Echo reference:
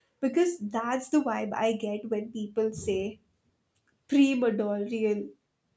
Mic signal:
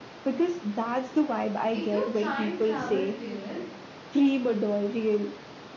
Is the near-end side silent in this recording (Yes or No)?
No